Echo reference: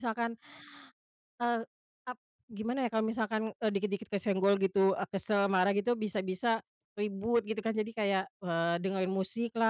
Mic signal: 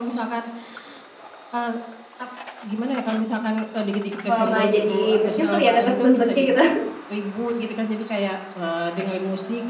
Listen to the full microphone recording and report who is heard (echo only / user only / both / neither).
both